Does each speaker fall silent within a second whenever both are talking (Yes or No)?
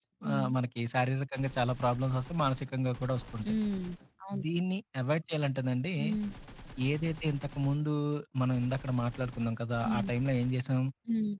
Yes